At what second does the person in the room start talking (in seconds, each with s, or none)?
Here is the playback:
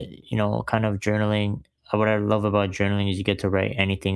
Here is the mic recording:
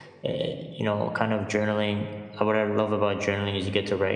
none